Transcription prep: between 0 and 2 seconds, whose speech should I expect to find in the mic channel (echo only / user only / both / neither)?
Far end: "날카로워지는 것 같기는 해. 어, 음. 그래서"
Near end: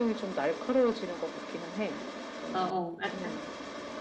echo only